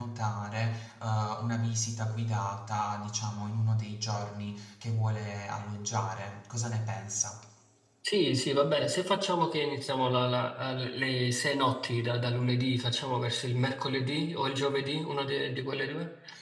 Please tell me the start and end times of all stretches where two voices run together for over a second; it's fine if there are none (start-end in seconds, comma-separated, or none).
none